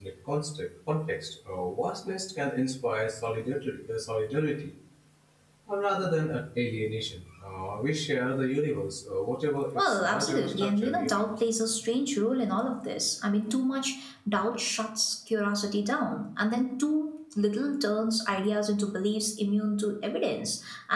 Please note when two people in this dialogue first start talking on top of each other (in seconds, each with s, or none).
9.8 s